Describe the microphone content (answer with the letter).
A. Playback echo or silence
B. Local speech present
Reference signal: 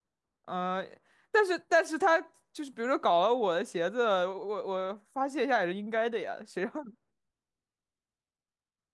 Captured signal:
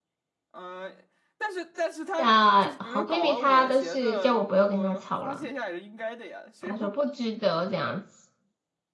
B